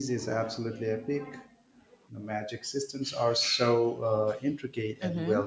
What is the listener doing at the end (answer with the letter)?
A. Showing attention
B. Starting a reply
B